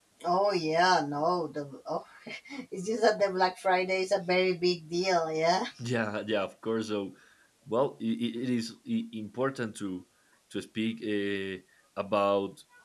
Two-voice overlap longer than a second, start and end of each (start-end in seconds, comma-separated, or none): none